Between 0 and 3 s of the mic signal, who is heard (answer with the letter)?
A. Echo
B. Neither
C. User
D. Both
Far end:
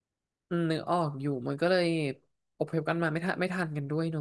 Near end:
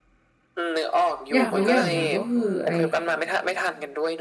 D